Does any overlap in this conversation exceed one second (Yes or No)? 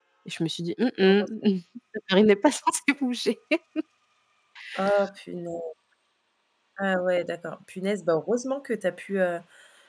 No